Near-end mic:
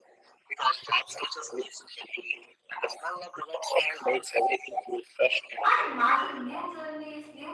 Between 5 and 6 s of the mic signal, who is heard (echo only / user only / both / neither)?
both